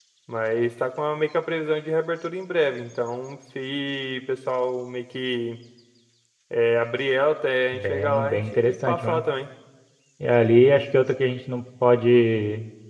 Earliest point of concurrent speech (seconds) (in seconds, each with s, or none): 7.7 s